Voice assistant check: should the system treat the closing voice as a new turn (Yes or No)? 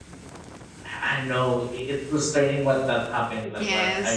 Yes